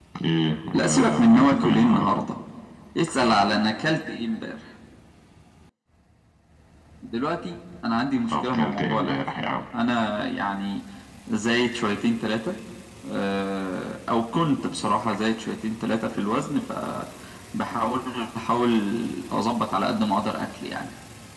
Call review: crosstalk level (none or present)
present